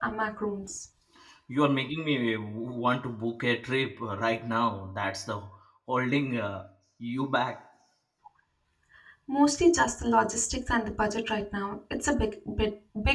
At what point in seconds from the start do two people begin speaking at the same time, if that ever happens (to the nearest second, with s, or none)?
none